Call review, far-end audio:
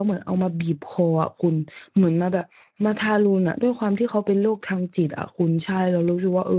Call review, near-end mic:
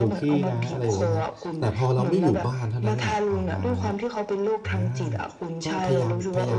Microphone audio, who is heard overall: both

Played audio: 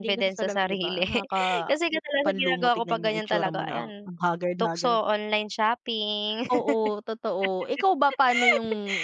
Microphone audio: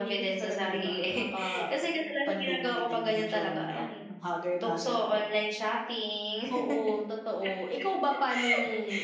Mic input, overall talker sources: echo only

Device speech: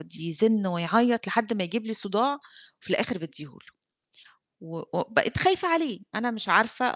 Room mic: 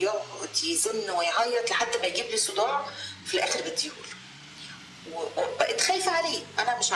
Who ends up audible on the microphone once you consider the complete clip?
echo only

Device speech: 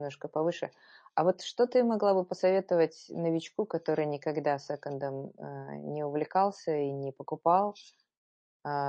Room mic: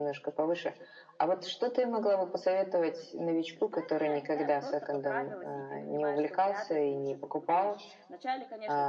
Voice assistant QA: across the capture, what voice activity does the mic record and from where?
both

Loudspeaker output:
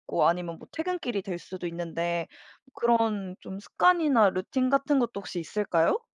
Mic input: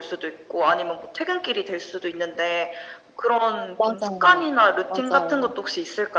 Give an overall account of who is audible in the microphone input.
both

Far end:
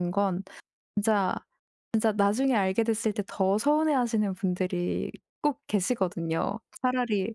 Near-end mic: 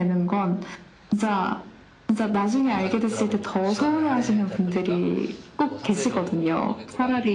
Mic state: both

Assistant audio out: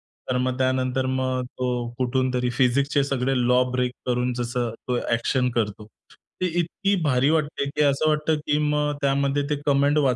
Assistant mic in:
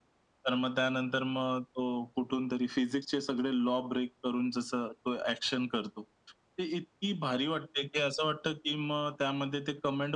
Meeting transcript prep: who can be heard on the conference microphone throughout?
echo only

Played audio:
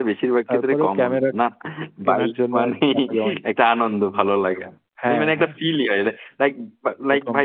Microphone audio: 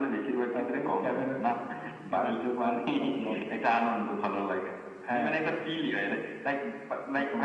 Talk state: echo only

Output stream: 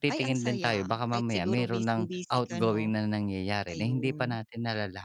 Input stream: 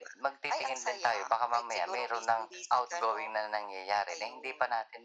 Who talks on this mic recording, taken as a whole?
echo only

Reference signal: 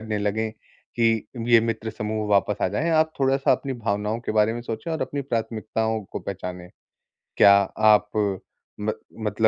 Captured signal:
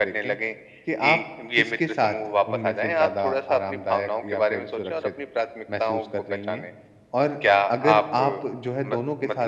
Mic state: both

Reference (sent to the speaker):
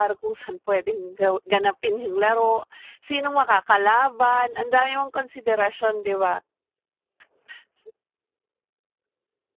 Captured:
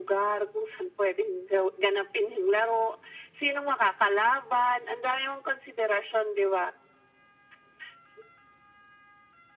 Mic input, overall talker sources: echo only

